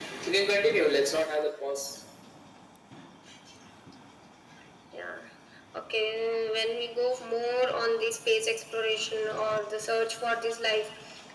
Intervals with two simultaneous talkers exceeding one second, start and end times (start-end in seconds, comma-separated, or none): none